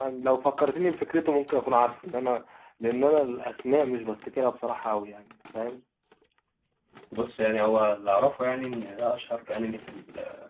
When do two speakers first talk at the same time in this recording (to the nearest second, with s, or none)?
none